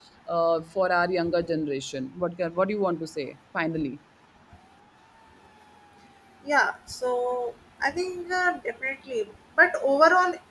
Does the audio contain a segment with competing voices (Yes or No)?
No